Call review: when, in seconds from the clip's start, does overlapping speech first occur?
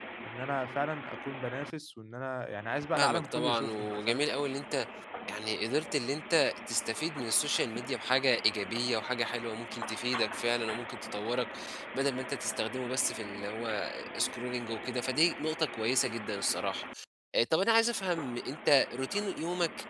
3.0 s

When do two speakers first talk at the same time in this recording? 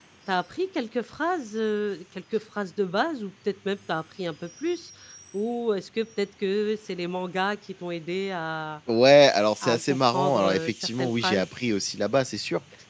9.6 s

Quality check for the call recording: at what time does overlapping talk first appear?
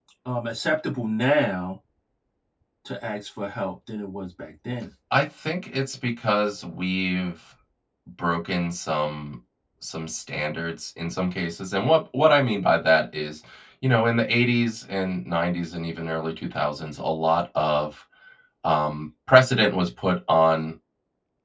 none

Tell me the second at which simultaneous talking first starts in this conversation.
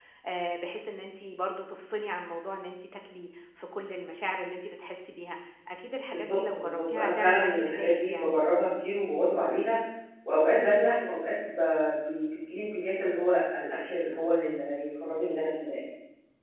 6.1 s

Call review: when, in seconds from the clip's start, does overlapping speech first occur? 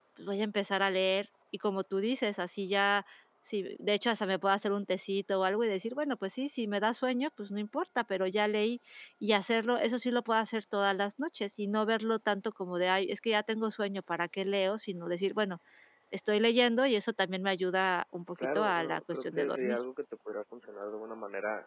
18.4 s

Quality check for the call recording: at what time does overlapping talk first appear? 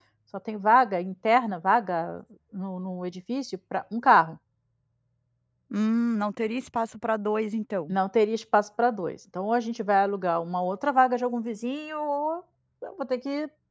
none

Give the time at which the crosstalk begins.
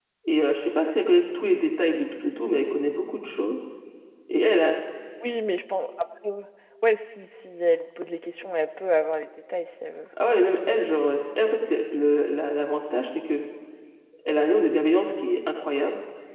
none

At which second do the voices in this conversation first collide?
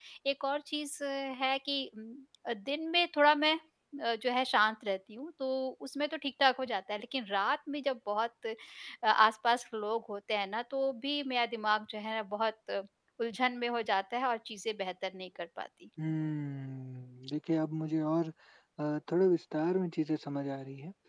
none

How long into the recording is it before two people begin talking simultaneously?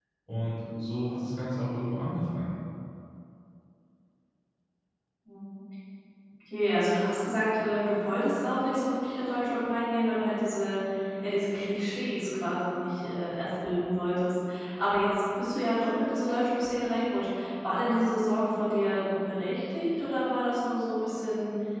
none

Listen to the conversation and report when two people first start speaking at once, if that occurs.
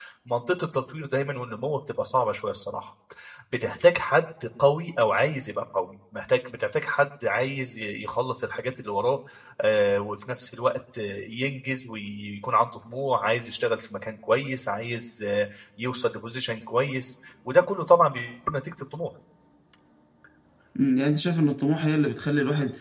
none

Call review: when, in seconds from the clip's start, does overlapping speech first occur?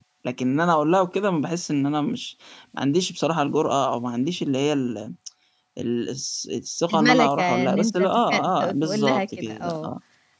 6.9 s

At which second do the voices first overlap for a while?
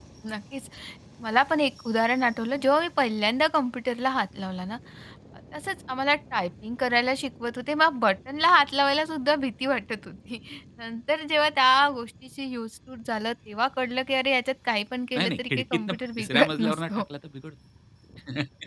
15.2 s

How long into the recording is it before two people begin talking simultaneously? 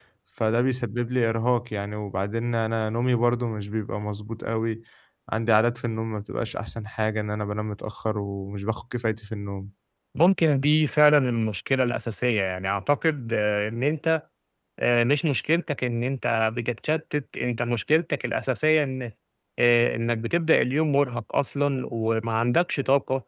none

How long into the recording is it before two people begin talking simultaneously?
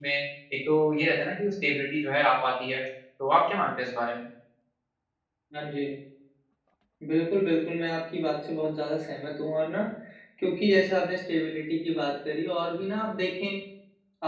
none

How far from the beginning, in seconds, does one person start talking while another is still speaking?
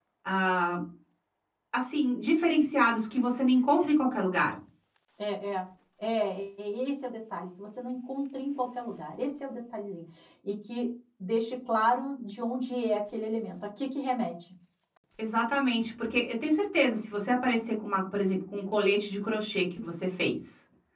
none

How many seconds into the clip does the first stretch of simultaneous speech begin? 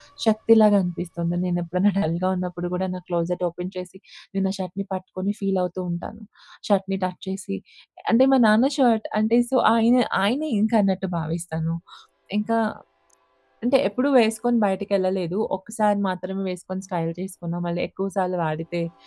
none

